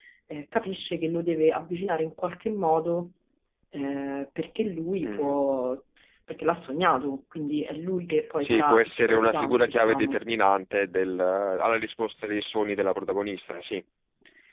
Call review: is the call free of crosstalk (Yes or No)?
No